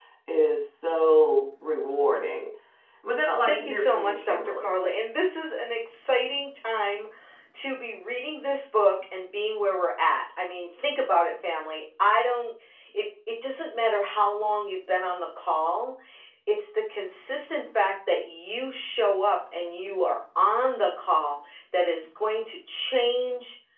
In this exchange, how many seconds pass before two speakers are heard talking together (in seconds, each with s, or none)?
3.5 s